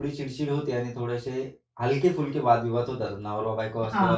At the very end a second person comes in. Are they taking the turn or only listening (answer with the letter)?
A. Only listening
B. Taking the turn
B